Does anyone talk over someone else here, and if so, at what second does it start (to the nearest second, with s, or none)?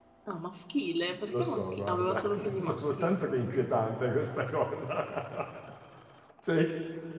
1 s